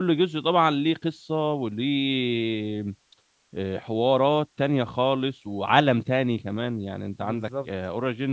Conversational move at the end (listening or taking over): listening